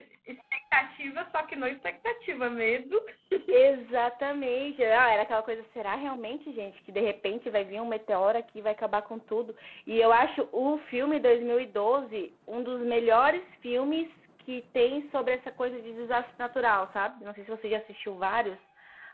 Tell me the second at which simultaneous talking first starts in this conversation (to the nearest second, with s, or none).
none